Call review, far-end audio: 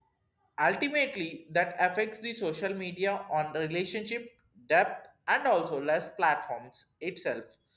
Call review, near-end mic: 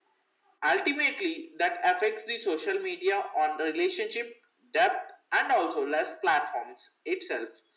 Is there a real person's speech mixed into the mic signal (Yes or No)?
No